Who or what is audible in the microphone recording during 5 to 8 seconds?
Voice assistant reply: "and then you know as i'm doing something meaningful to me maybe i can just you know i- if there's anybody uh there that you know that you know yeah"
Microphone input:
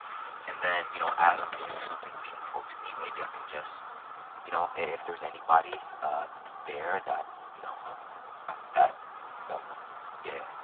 echo only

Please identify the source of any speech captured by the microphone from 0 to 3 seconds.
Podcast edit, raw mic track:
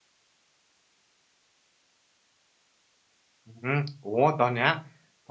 neither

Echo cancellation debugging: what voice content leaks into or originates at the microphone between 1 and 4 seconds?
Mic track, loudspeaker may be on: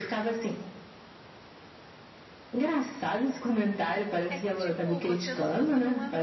echo only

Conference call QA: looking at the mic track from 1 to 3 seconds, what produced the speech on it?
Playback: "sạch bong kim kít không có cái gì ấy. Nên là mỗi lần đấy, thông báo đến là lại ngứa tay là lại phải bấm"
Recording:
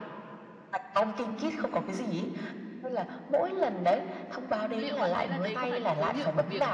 echo only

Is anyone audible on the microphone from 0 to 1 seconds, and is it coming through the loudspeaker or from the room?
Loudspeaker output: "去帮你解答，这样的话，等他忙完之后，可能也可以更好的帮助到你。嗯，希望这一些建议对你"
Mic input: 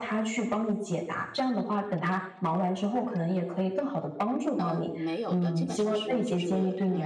echo only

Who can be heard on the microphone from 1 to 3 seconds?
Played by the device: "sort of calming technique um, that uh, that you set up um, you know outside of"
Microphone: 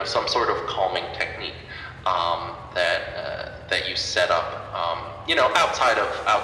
echo only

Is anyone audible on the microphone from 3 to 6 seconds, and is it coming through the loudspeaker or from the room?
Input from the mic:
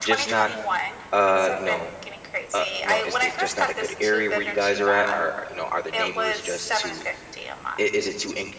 both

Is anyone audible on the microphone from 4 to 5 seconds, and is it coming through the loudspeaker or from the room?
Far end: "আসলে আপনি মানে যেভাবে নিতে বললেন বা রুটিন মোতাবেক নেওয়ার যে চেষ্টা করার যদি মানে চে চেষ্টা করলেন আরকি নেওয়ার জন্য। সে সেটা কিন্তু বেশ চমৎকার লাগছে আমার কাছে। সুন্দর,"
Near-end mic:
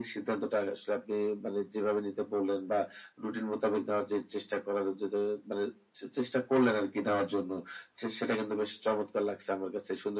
echo only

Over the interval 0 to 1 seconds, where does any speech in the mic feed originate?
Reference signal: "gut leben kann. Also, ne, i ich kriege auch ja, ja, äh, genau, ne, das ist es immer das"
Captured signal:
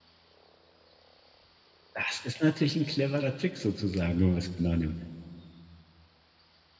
neither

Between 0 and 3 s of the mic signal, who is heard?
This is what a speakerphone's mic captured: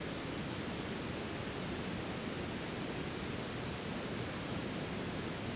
neither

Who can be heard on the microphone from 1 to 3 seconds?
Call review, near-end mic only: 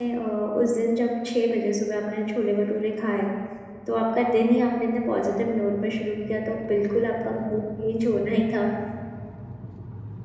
user only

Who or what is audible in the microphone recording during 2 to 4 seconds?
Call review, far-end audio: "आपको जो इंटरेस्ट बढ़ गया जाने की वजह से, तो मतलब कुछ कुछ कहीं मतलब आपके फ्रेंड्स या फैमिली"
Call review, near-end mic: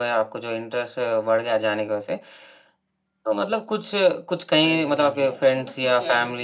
echo only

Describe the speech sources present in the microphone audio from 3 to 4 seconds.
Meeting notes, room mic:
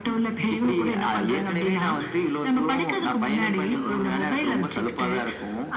echo only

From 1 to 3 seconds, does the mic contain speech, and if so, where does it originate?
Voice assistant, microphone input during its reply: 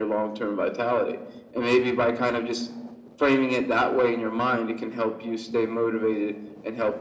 echo only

